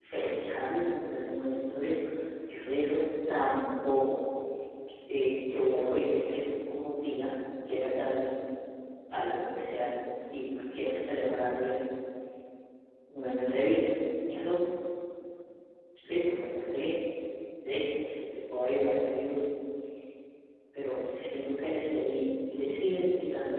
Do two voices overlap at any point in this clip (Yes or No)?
No